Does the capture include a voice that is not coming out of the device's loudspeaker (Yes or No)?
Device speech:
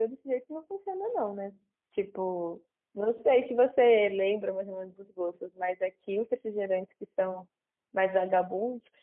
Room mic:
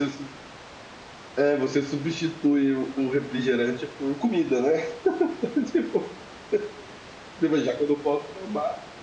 Yes